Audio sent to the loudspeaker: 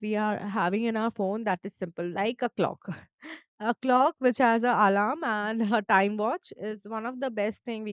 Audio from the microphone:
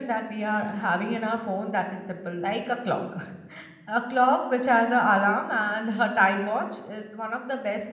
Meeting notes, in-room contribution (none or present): none